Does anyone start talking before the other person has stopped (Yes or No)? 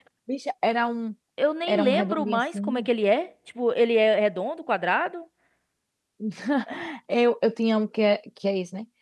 Yes